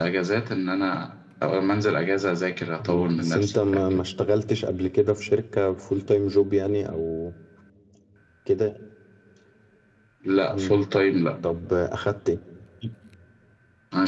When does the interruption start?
2.8 s

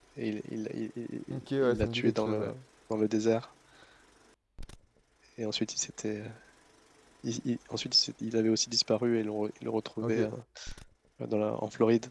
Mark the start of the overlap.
1.3 s

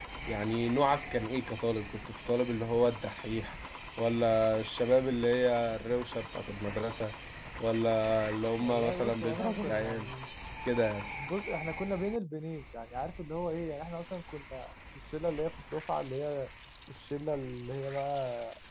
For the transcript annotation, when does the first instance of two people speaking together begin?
8.6 s

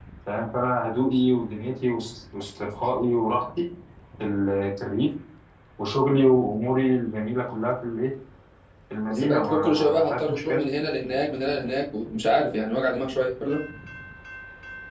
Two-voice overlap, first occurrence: 9.1 s

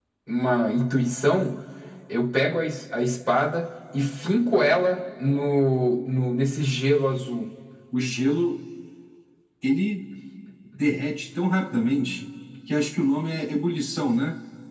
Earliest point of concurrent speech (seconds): none

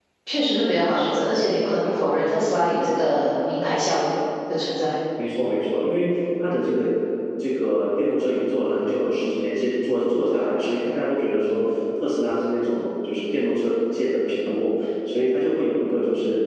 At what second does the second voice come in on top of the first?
none

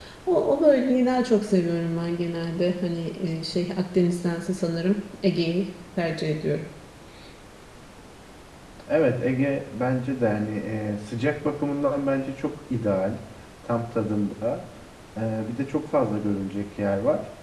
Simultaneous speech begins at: none

